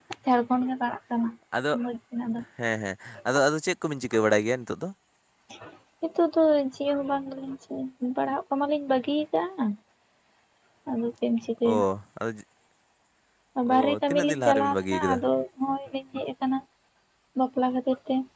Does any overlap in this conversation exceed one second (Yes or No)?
Yes